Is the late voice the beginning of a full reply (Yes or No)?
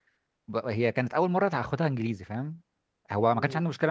No